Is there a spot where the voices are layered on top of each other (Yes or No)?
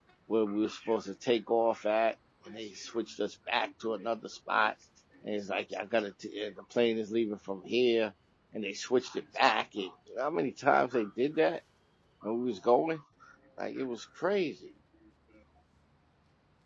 No